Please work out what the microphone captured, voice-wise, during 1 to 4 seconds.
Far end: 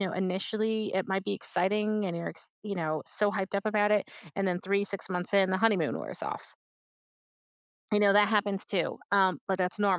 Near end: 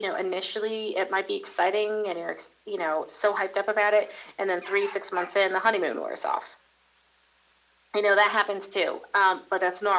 echo only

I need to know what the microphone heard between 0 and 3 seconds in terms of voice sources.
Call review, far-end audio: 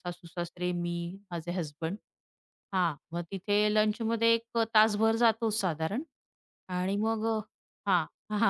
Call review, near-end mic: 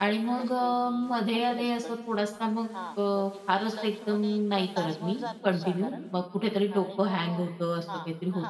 both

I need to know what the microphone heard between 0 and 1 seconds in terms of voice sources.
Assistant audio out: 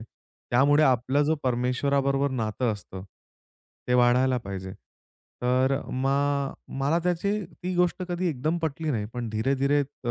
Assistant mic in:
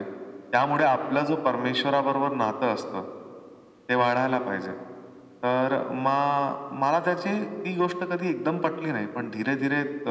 echo only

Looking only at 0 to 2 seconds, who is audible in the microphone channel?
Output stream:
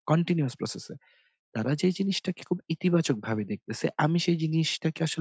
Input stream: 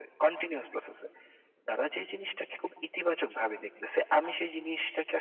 echo only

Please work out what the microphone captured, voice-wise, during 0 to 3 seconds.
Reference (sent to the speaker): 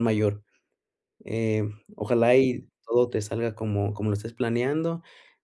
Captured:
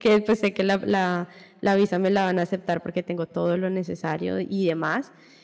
user only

